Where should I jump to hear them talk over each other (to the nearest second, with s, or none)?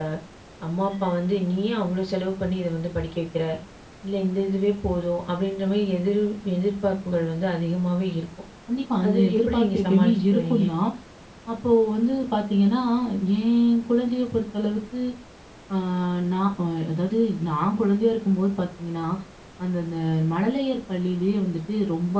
9 s